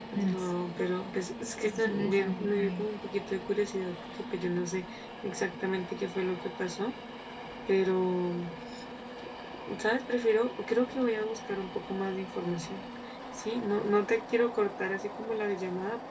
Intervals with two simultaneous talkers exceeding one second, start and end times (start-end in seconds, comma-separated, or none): 1.6-2.9